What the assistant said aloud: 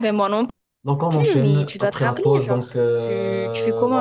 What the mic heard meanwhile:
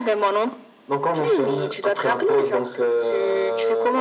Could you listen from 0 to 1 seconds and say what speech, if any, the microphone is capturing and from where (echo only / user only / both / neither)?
echo only